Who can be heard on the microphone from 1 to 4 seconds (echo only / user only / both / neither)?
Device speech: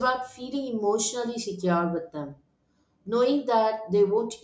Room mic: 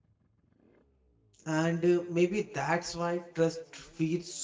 user only